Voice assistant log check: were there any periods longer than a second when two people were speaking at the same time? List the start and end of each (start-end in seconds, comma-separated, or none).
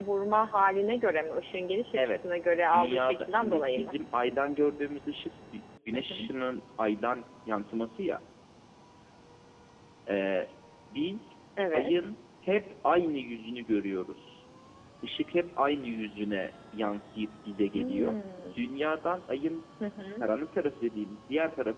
2.7-4.0